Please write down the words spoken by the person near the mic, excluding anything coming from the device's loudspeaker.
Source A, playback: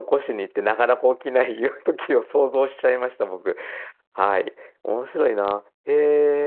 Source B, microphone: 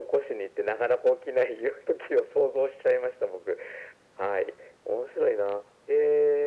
none

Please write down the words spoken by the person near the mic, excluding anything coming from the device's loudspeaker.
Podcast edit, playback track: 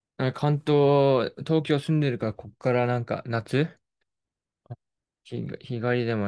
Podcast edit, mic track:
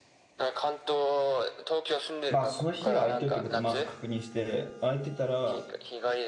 まあ、その日は空いてるってことをまず確認して、空いてたら、

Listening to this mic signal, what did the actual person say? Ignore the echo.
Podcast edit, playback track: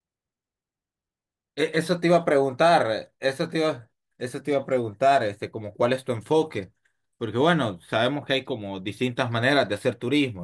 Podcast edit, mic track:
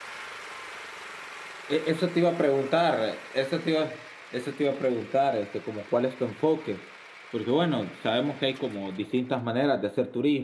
none

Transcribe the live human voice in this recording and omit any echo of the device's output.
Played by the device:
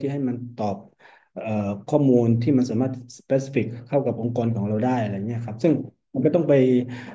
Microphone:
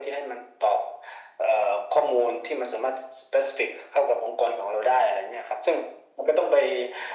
none

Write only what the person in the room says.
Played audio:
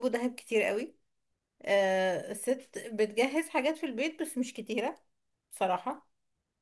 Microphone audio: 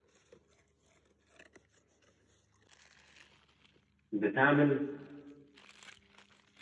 بتعمل

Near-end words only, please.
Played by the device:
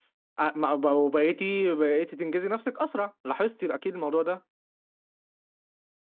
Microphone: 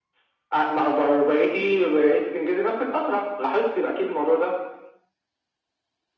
none

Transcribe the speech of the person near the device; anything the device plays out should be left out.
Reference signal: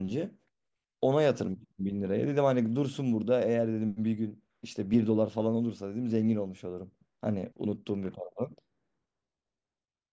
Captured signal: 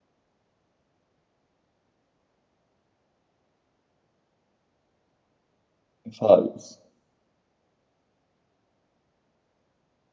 Faiz.

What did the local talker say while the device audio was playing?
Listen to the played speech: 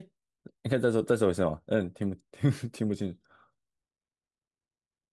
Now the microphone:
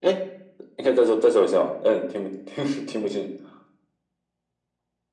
none

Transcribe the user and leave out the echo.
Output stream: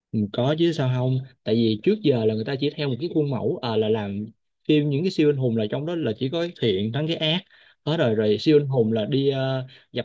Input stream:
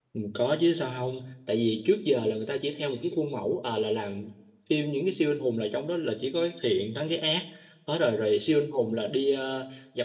none

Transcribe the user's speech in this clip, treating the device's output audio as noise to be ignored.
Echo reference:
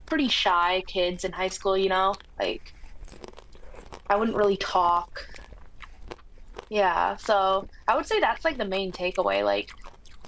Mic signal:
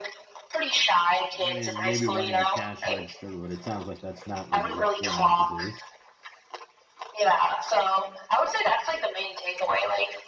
I mean, maybe running the cash register, but it sounds like that's not what you went on to do.

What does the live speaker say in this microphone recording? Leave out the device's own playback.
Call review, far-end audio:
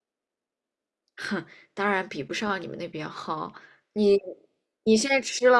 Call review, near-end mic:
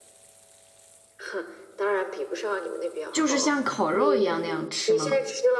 就是像烤肉一样那样吃吗？

